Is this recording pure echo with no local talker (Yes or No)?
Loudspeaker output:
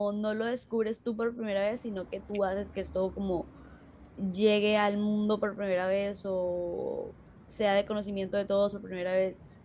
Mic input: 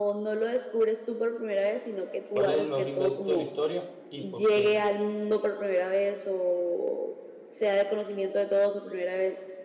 No